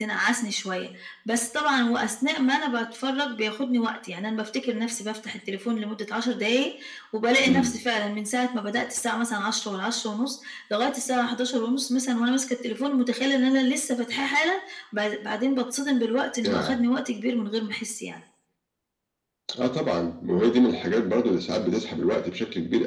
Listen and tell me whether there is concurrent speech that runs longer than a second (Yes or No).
No